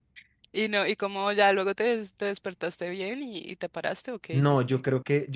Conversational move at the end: taking over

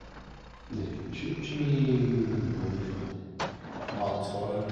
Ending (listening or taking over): taking over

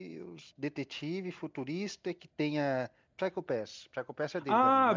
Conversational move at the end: taking over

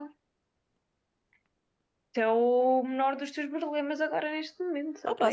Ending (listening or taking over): taking over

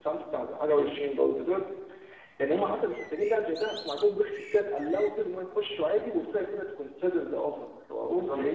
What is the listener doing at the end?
taking over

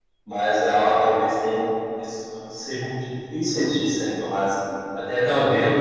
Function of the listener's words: listening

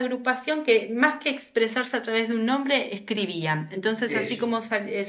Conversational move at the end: listening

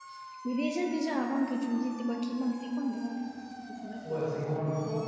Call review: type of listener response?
taking over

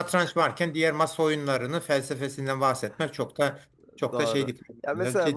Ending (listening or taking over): taking over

